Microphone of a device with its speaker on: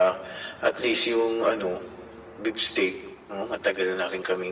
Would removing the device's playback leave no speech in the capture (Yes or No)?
Yes